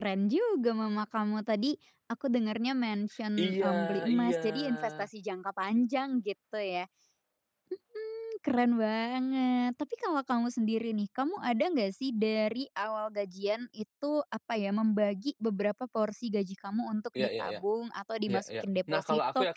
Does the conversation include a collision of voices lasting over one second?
Yes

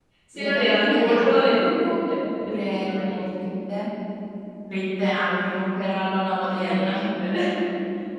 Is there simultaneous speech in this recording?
Yes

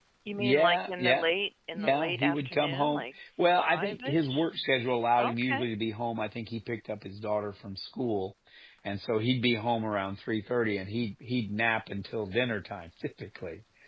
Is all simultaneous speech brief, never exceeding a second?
No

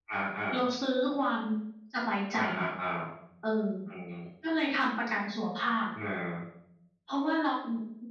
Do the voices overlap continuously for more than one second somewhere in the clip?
No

